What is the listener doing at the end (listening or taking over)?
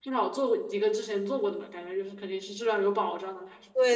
taking over